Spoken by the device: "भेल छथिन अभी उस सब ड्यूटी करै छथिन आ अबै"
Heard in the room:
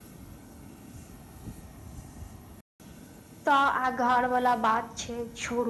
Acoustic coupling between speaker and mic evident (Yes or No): No